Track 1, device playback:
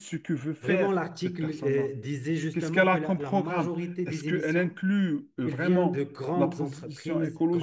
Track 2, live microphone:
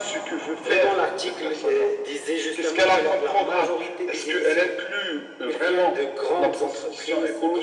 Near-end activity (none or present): none